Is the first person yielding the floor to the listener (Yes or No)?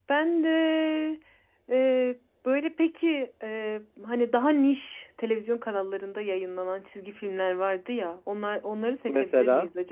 No